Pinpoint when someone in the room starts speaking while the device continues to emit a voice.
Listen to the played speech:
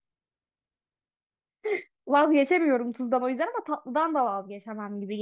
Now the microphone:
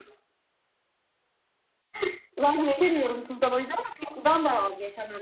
none

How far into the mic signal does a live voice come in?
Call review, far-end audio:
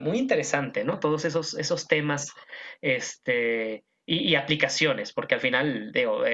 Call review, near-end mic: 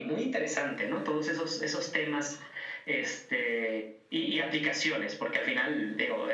none

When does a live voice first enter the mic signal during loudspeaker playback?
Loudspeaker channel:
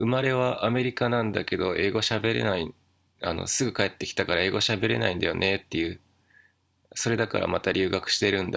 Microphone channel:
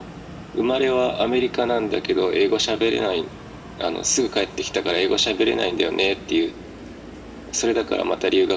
none

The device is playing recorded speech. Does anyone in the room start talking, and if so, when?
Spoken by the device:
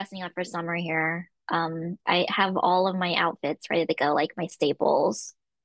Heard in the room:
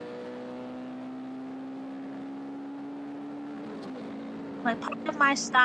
4.6 s

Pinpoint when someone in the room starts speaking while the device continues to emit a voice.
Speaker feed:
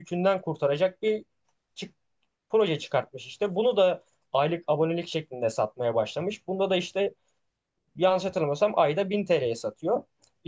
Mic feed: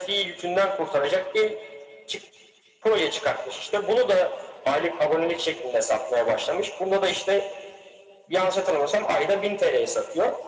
none

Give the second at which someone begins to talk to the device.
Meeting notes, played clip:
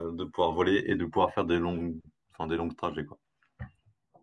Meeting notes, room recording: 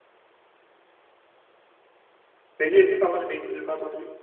2.6 s

